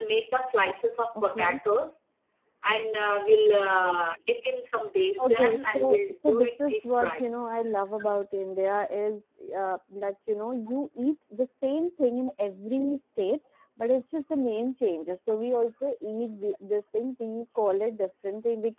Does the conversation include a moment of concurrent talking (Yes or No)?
Yes